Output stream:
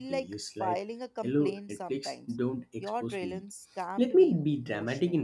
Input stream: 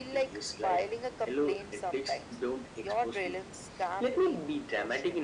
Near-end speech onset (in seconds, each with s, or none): none